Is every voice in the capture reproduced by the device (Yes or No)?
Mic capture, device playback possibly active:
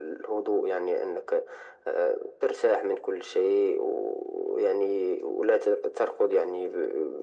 Yes